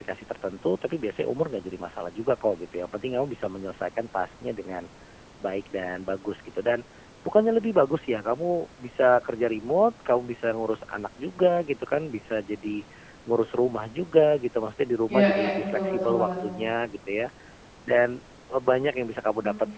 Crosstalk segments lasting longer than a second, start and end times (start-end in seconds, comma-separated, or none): 15.1-16.3